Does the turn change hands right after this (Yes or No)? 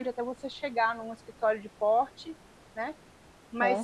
No